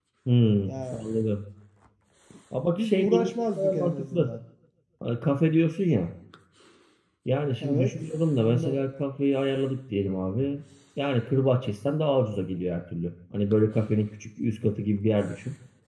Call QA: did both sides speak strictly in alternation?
No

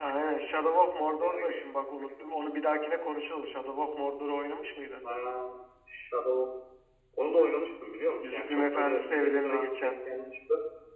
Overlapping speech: Yes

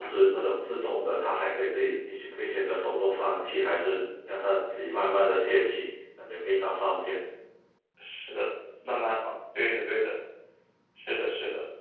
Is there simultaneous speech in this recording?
No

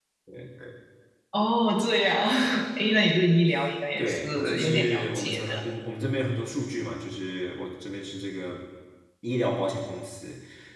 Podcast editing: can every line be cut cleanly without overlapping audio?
No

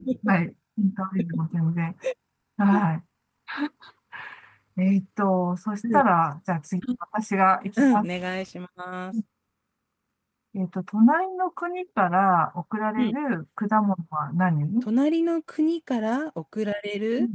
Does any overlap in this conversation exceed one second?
No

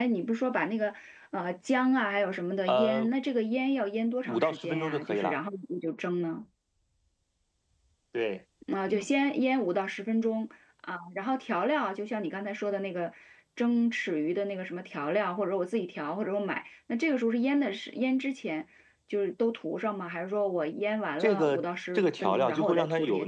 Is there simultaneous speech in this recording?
Yes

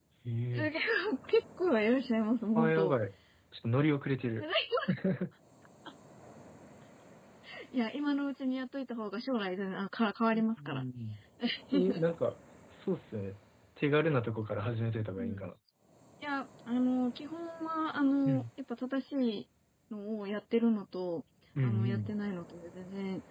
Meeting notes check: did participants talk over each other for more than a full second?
No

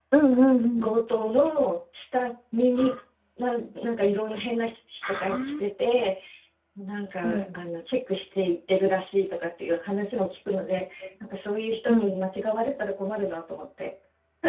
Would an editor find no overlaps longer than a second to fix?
Yes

